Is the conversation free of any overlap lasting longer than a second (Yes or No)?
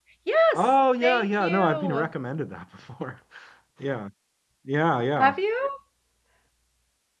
No